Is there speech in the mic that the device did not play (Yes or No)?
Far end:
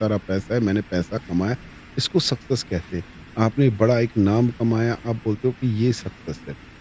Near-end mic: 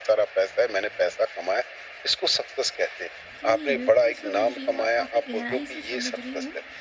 Yes